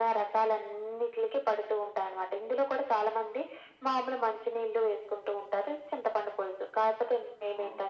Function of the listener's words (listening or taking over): listening